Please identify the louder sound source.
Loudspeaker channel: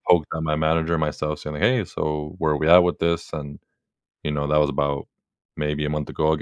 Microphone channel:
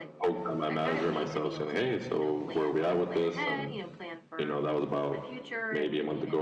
echo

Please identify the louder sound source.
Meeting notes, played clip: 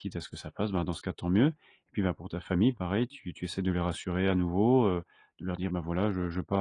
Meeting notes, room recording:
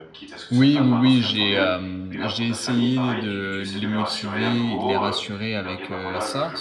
user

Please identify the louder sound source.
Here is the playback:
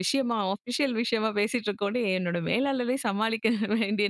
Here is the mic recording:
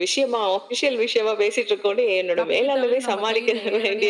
echo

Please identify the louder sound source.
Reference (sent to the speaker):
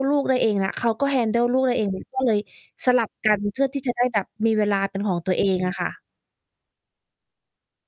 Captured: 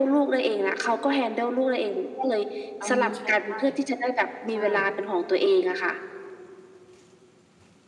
echo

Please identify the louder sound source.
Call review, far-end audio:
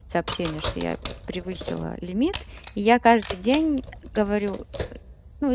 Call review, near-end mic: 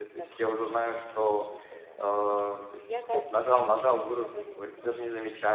user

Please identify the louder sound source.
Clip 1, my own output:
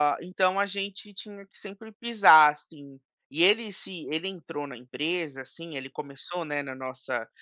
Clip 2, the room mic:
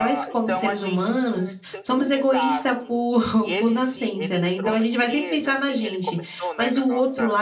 user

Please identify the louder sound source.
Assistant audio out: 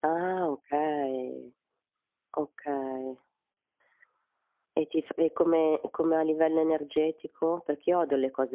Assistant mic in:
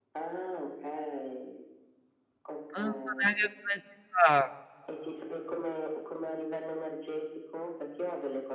user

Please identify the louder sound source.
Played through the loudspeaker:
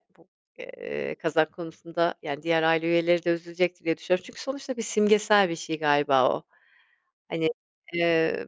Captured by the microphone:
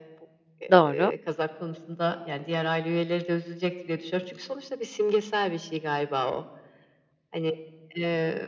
user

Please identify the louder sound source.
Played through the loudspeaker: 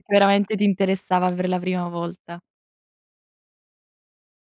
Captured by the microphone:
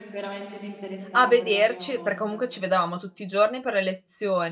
user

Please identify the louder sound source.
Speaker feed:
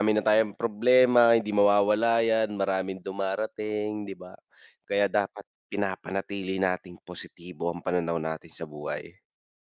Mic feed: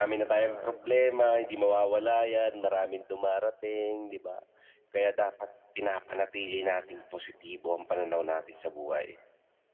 echo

